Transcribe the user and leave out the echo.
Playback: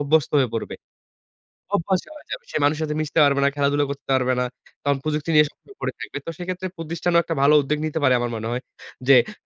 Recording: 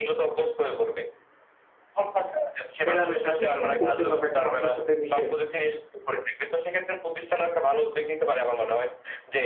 মেলামেশা, সেটি কিন্তু করতে পারবে একটা মানুষের সাথে মিশে।

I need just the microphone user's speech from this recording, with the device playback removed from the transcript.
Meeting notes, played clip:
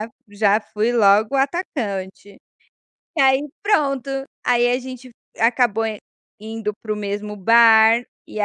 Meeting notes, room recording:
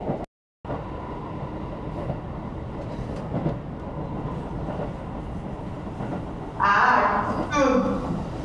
Ah, que tudo.

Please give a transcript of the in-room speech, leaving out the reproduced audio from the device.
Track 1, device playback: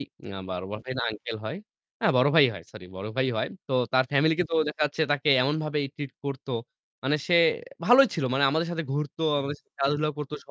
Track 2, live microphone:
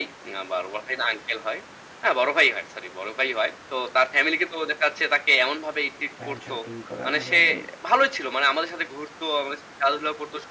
প্যান্ট শার্ট ইন করা মানে আ

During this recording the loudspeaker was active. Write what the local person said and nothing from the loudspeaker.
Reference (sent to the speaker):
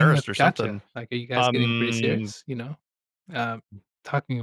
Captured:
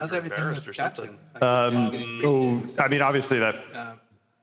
Um, so, I mean, obviously that

